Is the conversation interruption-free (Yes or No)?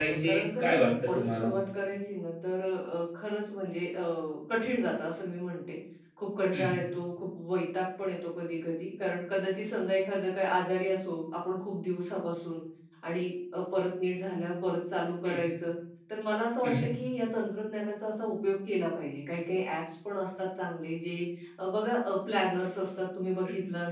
No